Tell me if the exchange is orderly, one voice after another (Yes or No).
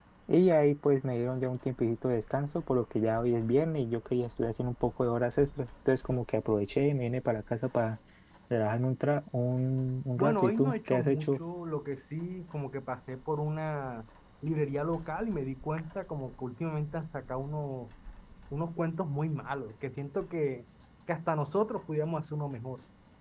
No